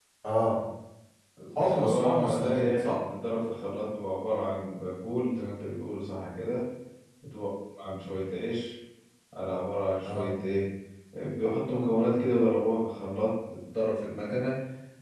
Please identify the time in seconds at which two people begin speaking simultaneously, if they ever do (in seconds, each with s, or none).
1.6 s